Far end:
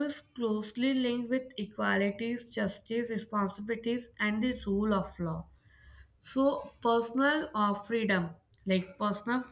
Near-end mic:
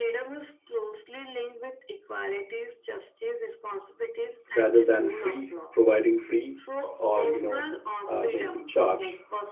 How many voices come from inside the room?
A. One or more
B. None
A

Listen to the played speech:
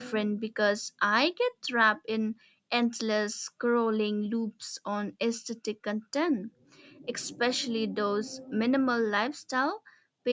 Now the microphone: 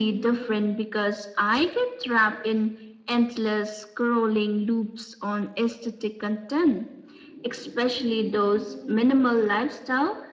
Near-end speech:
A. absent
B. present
A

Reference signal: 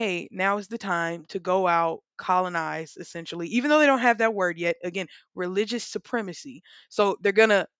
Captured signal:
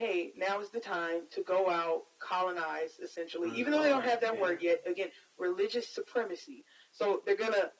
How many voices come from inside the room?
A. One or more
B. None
A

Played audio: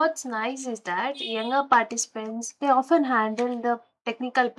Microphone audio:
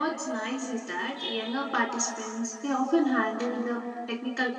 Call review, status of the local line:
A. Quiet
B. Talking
A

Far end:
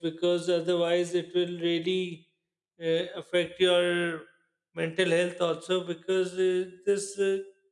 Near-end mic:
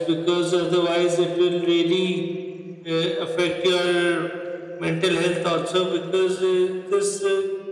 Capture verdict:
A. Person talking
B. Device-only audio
B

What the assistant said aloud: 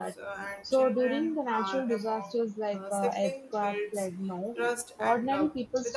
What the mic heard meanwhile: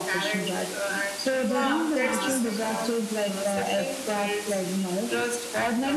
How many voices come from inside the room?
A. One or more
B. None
A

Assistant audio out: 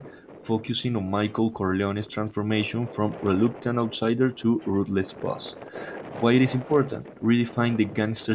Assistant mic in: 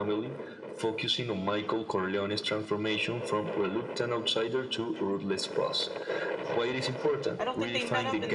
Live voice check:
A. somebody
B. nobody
A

